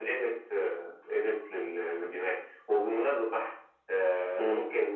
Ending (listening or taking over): listening